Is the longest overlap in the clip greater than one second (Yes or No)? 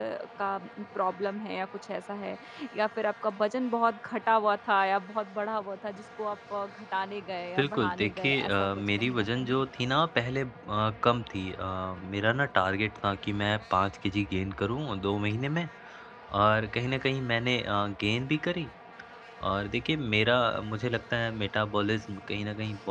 Yes